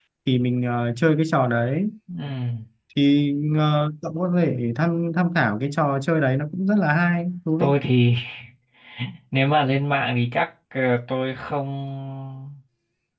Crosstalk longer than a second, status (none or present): none